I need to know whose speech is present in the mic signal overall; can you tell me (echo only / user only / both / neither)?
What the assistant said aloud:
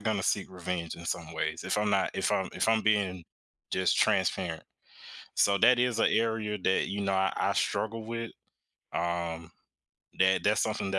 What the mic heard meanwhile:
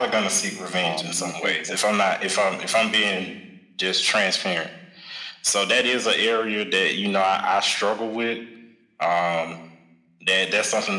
both